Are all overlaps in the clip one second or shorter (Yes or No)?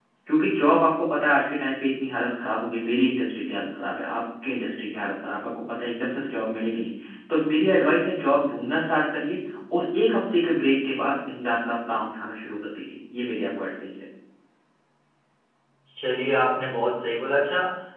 Yes